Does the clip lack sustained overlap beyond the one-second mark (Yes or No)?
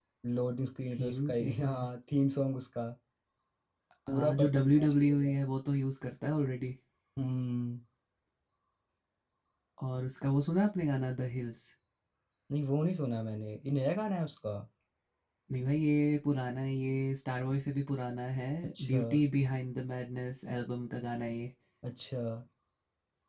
No